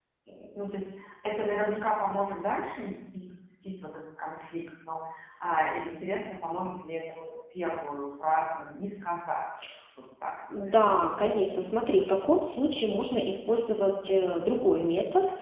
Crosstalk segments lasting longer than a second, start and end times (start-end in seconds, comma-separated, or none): none